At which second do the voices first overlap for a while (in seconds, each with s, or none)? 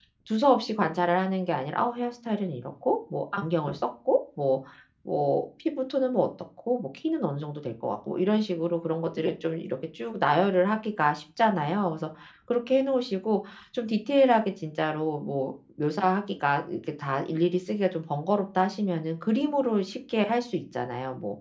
none